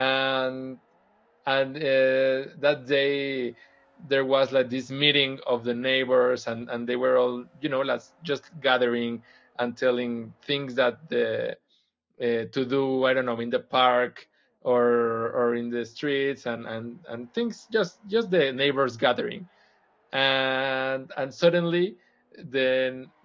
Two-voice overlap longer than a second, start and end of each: none

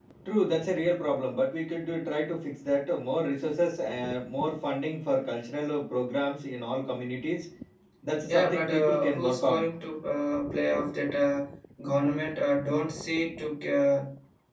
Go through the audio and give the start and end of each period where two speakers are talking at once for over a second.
8.3-9.7

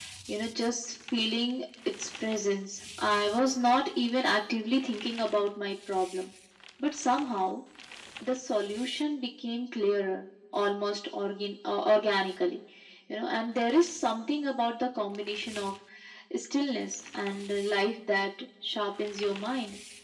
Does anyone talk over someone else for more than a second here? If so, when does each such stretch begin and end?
none

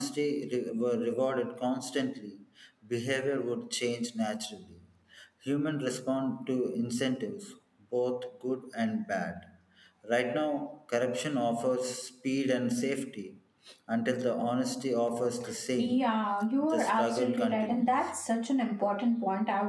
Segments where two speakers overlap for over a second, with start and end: 16.6-18.1

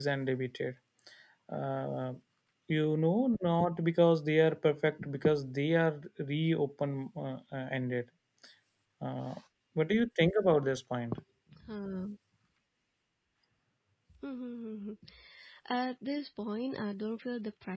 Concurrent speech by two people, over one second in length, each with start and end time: none

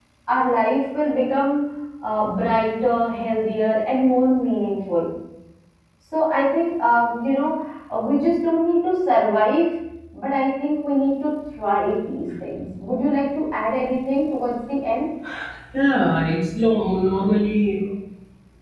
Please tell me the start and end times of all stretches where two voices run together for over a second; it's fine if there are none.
none

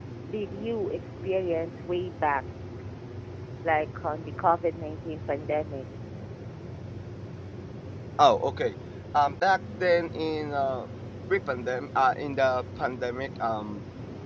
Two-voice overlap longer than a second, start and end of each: none

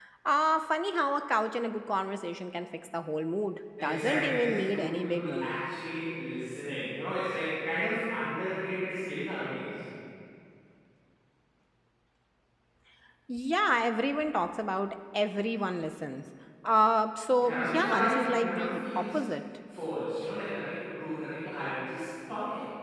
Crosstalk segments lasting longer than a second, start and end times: 3.8-5.6, 17.4-19.2

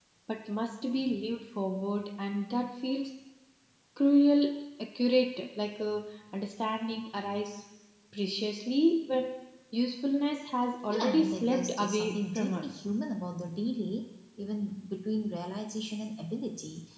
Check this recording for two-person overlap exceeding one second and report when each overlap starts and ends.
10.9-12.8

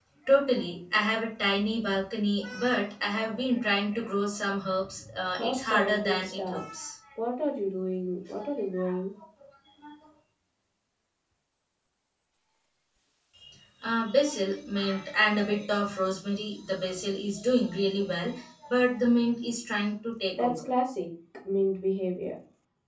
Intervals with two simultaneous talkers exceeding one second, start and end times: 5.4-6.6

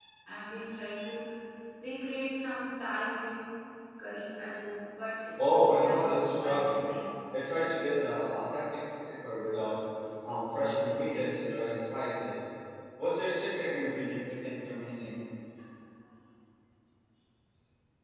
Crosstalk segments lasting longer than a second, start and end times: 5.4-6.8

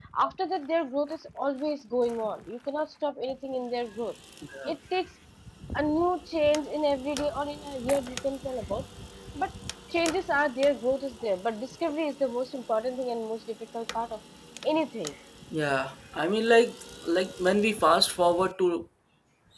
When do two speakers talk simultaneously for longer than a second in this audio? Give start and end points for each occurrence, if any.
none

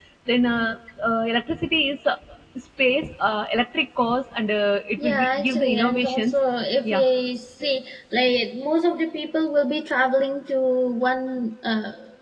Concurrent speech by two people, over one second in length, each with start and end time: 5.0-6.4

